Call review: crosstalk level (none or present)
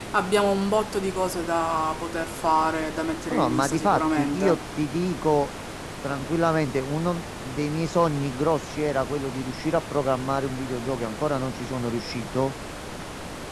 present